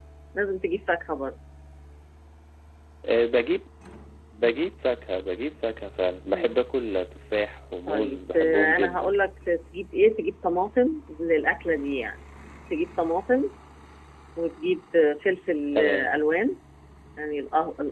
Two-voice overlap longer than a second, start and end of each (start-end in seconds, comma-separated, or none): 7.9-9.1